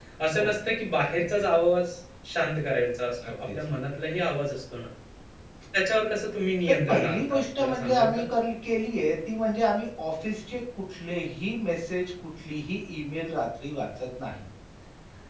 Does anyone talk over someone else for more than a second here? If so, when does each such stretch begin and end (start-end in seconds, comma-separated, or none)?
6.6-8.2